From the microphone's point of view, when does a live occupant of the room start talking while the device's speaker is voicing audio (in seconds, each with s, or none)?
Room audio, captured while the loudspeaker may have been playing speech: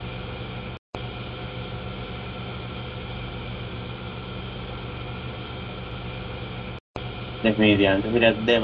7.4 s